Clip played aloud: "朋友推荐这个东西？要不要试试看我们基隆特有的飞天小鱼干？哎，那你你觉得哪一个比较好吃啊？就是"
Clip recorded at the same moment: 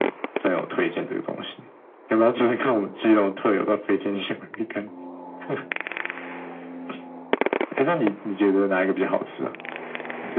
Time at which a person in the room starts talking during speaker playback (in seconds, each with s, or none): none